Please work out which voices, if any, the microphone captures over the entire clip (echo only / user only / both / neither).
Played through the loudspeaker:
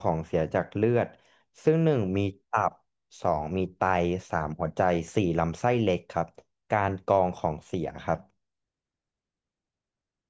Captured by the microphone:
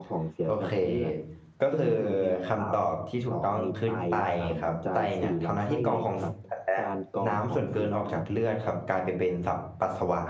both